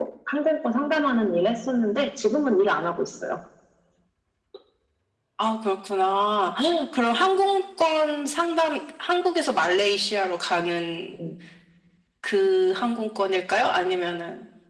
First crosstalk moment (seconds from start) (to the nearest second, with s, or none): none